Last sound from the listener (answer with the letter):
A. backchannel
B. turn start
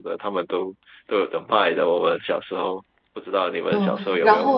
B